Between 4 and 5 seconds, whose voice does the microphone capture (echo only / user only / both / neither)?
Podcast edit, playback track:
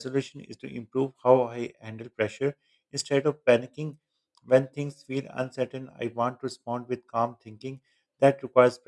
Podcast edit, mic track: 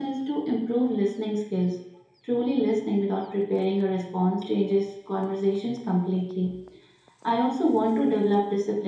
user only